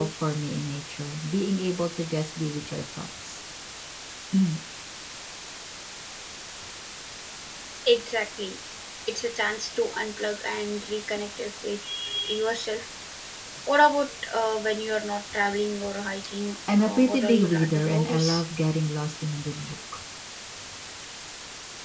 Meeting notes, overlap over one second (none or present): present